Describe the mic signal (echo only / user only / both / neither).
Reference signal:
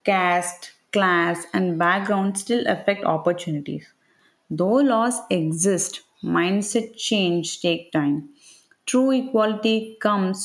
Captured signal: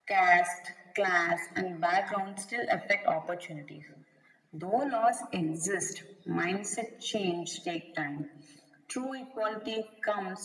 echo only